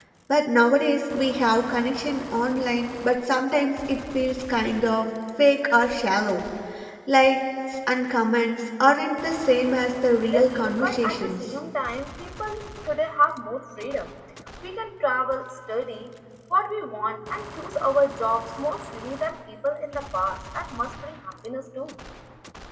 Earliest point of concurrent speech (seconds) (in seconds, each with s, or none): 10.1 s